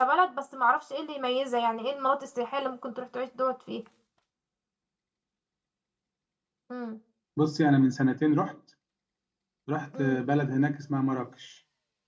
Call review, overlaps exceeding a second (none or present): none